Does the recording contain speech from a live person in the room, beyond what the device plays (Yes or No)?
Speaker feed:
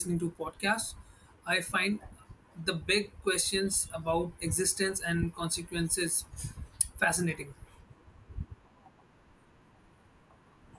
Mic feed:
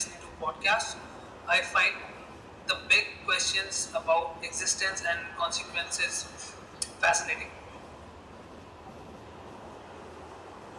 No